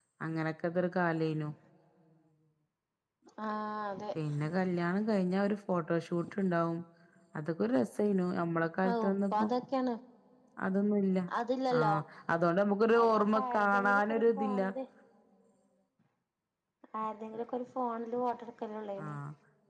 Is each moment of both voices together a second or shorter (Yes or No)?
No